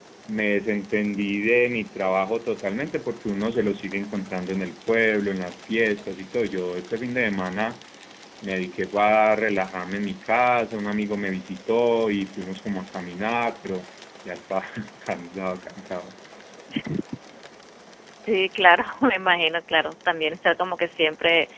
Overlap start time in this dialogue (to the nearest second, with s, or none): none